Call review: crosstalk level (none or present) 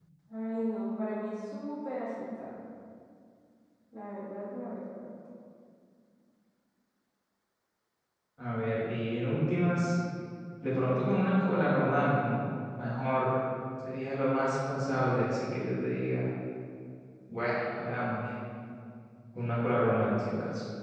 none